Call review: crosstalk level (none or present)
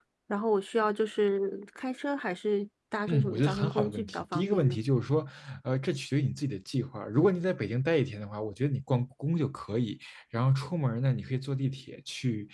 present